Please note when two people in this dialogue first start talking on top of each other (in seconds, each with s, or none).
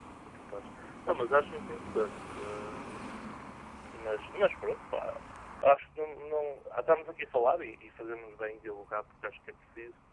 none